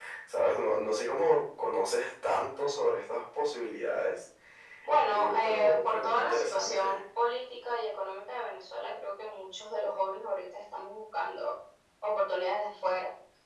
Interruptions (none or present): present